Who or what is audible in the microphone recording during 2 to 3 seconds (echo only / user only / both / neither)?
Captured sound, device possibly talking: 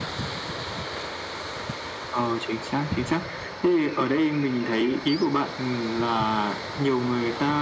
echo only